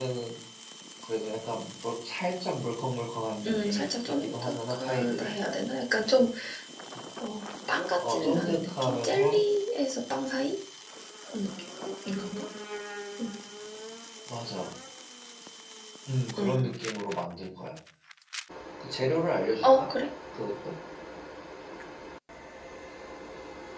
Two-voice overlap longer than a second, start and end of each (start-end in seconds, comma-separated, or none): 3.5-5.3, 8.0-9.4